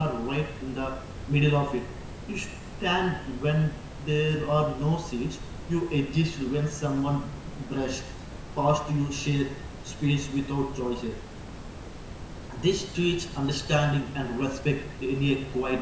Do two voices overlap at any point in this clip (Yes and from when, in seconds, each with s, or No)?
No